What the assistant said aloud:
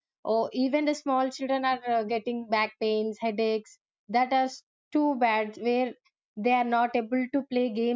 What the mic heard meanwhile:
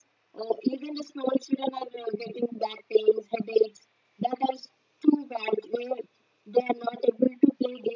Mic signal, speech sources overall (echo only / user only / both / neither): echo only